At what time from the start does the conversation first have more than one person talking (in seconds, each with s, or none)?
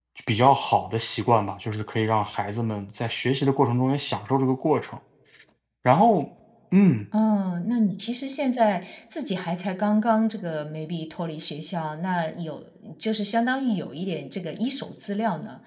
none